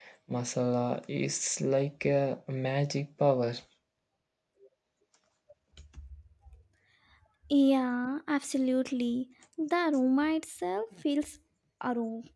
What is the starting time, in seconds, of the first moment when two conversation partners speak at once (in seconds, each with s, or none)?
none